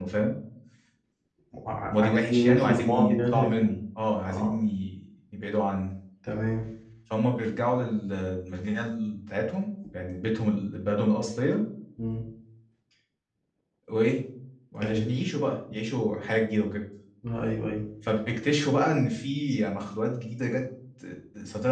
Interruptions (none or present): present